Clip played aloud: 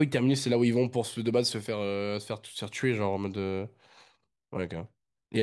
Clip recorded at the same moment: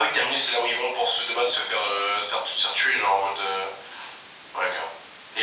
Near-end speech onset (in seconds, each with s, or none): none